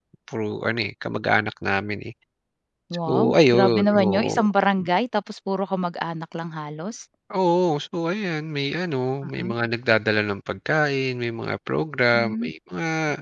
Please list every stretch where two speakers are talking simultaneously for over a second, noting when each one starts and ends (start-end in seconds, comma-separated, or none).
3.1-4.3